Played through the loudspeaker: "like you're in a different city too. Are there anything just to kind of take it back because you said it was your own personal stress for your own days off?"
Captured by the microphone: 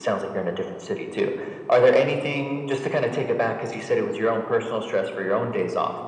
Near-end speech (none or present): none